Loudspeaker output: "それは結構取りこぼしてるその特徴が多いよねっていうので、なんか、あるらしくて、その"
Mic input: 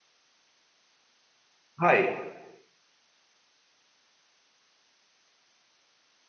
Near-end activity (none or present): present